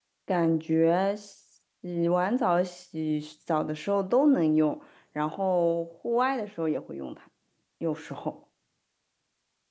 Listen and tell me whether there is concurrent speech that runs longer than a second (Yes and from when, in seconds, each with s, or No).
No